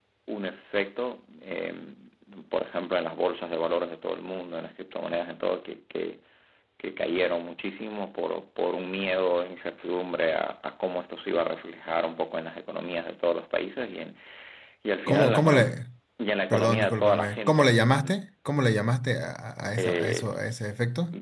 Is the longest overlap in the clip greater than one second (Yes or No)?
Yes